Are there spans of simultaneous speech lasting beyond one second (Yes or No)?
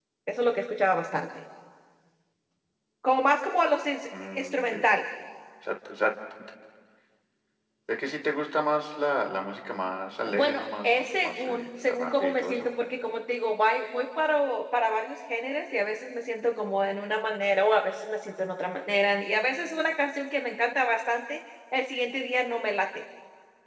Yes